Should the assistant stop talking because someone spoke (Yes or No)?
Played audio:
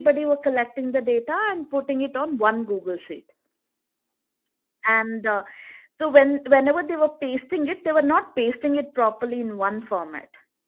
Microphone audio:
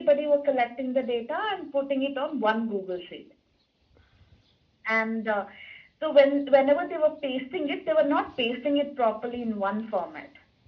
No